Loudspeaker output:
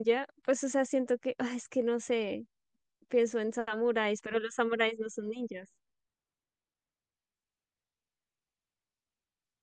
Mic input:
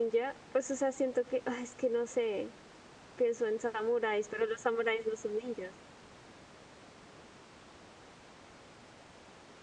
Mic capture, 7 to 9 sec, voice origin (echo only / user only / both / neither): neither